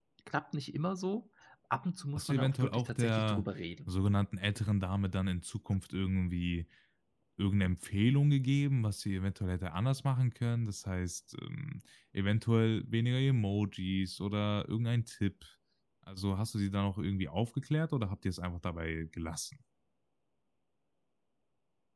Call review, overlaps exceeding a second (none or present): present